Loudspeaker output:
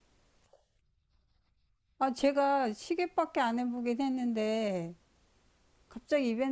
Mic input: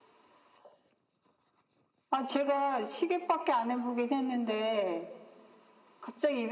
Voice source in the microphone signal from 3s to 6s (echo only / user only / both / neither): echo only